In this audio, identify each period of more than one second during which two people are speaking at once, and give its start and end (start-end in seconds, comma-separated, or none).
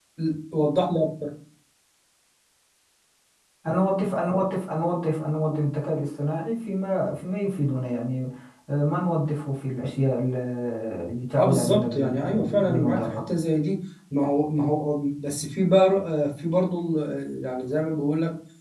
11.4-13.2